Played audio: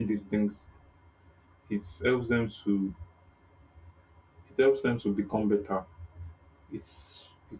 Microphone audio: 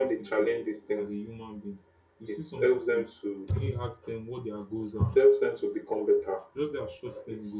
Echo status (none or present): present